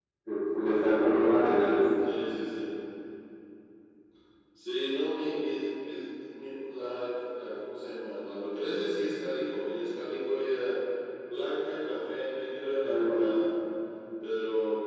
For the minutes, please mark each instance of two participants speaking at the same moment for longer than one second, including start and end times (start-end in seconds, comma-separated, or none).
none